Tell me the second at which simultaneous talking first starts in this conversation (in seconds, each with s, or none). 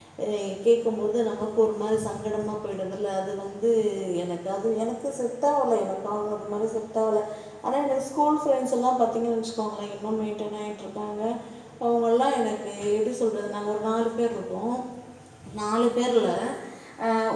none